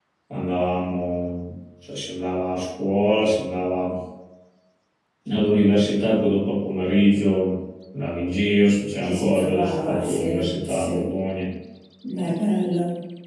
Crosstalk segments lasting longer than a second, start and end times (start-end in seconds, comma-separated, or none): 9.0-11.0